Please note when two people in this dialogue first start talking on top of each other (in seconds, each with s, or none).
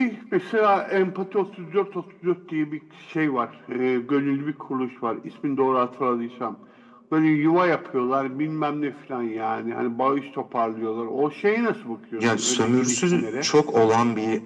12.2 s